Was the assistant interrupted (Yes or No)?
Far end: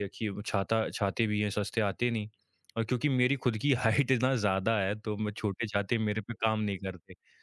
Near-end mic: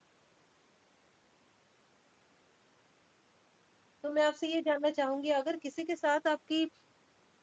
Yes